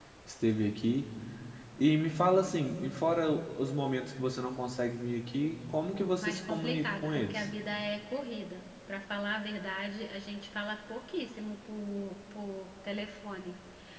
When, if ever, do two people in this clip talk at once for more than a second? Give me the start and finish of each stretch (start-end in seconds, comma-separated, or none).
6.2-7.5